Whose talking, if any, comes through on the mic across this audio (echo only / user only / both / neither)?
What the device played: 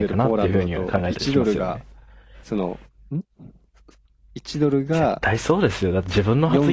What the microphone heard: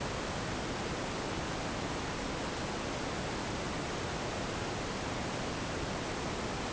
neither